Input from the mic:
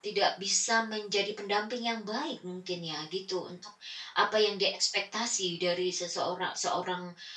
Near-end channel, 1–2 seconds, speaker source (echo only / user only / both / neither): user only